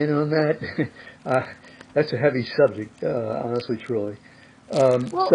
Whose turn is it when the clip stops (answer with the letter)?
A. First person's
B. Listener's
B